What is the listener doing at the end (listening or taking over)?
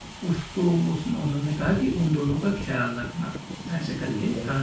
listening